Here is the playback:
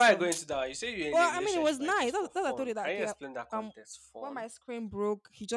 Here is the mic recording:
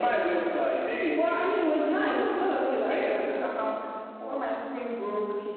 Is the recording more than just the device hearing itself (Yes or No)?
No